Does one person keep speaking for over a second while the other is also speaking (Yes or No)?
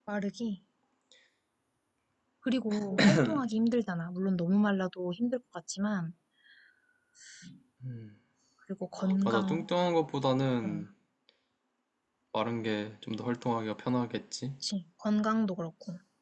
No